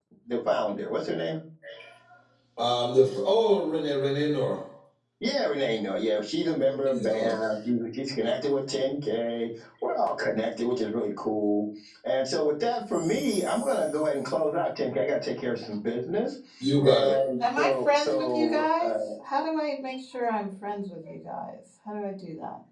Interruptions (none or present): present